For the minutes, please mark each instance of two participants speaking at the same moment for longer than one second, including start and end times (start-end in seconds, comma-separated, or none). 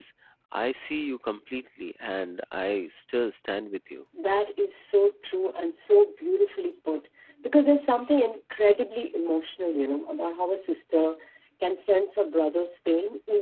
none